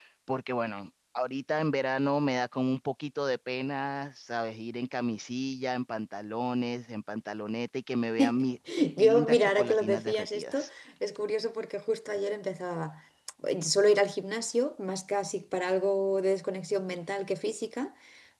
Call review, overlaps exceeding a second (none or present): present